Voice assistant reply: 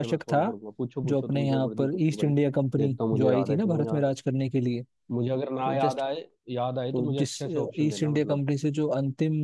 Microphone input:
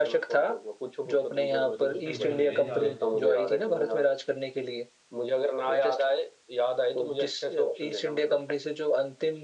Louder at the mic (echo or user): echo